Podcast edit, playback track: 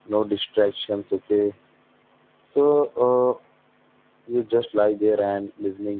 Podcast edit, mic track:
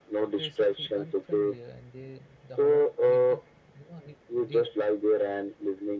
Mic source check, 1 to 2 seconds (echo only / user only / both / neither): both